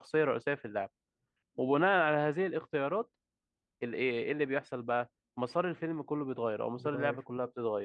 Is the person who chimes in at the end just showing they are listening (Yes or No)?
Yes